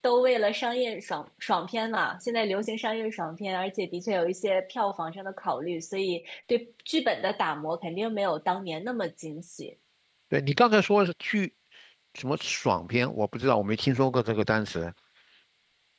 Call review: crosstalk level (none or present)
none